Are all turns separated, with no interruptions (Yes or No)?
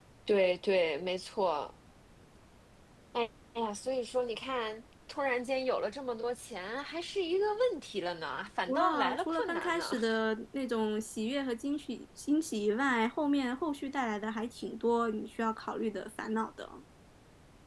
No